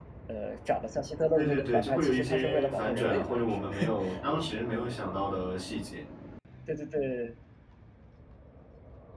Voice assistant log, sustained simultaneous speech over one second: present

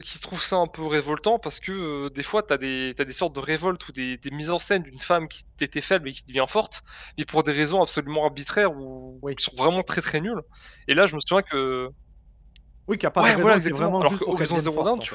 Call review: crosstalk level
present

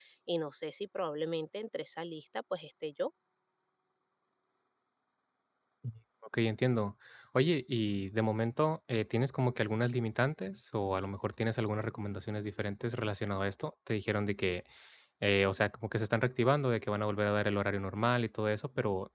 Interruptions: none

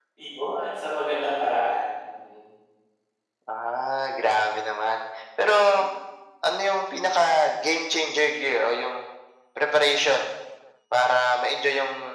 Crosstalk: none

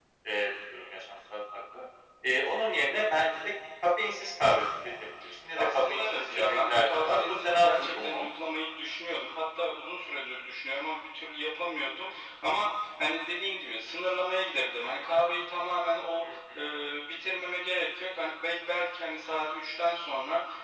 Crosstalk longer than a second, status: present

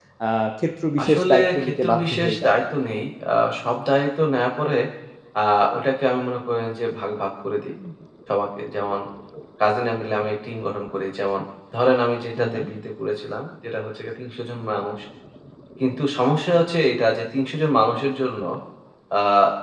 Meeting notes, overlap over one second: present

